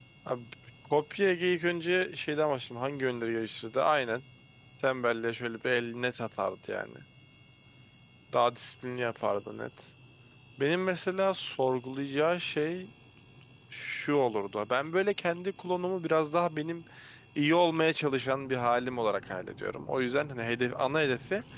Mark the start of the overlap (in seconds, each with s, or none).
none